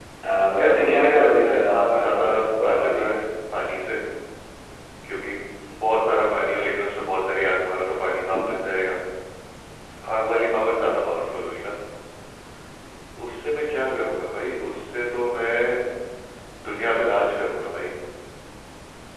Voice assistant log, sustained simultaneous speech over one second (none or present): present